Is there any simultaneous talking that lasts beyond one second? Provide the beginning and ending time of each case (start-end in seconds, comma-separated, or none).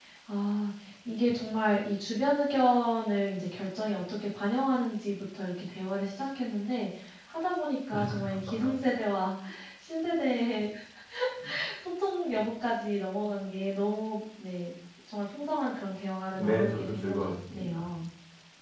16.3-17.8